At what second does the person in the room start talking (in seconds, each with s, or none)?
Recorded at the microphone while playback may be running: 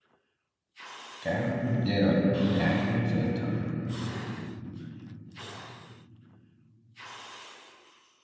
1.2 s